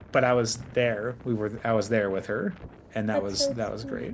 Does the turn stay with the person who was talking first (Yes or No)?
No